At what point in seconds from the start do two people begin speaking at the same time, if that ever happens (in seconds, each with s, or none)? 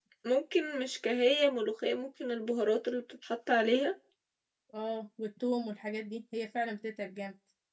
none